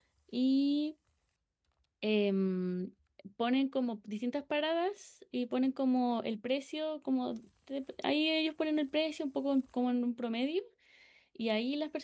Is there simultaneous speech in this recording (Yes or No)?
No